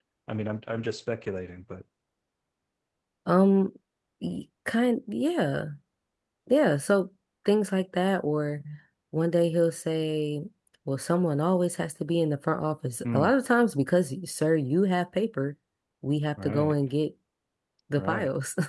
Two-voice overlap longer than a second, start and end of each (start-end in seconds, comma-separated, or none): none